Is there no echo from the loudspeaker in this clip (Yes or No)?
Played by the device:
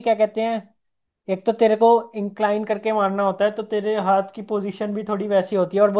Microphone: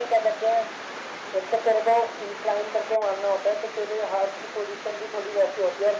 No